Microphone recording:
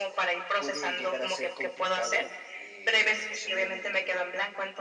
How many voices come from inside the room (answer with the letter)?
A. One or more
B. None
B